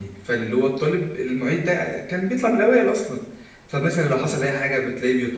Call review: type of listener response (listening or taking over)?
listening